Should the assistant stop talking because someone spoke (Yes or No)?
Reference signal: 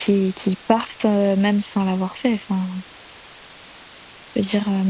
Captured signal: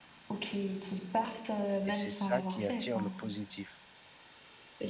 Yes